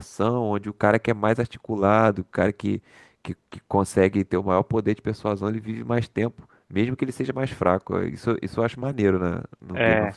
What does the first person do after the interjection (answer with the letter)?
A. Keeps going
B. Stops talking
B